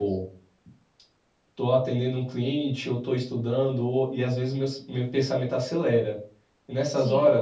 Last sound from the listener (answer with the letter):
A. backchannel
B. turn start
A